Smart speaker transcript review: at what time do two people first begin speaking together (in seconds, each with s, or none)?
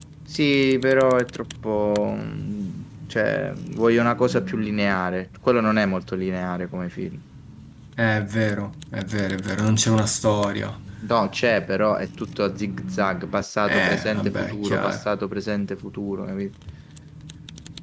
13.6 s